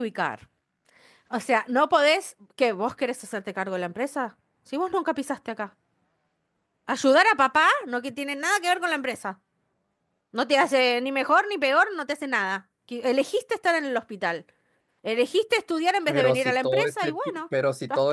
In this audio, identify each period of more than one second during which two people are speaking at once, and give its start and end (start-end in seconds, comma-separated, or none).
16.1-17.4